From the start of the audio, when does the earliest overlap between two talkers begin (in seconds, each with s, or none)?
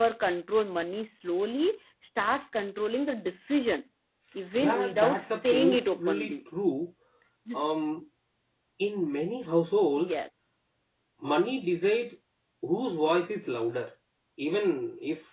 4.6 s